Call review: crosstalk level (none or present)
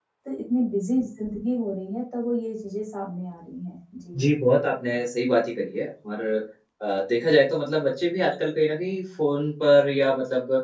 none